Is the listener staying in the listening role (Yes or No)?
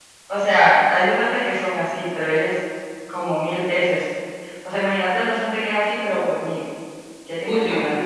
No